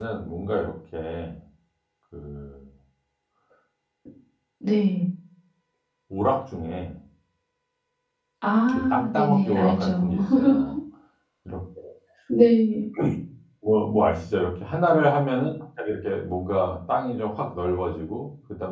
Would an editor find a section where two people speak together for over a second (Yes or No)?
Yes